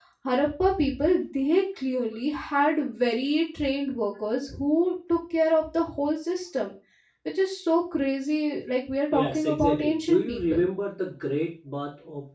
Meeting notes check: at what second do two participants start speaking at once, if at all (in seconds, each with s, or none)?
9.1 s